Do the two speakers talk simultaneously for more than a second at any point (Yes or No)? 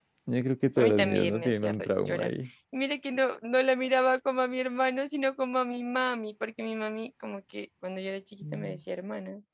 Yes